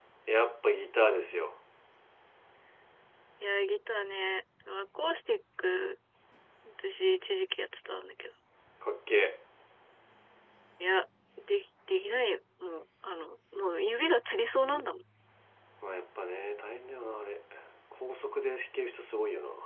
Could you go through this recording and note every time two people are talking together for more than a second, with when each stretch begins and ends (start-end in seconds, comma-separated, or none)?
none